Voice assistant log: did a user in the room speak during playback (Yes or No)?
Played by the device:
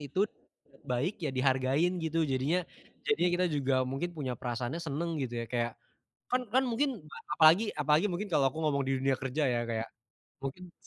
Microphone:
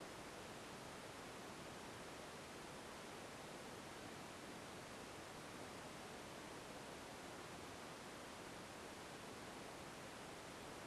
No